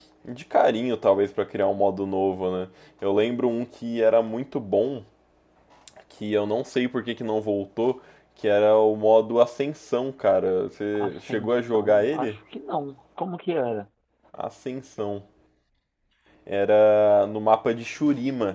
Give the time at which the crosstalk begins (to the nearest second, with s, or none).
11 s